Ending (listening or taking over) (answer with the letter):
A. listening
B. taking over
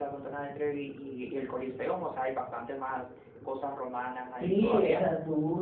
B